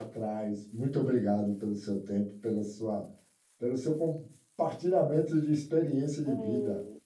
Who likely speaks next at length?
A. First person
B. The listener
B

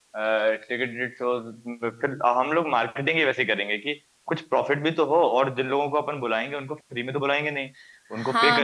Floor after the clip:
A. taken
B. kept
A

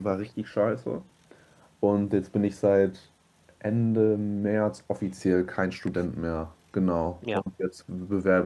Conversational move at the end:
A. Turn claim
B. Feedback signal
B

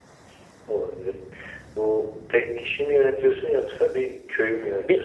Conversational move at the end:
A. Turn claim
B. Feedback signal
A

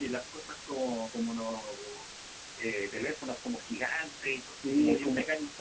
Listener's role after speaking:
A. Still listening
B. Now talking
B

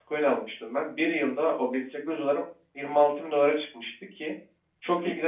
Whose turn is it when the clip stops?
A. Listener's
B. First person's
B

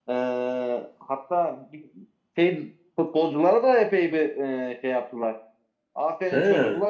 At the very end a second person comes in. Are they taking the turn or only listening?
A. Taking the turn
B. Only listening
B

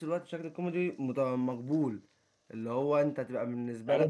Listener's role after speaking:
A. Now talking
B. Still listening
A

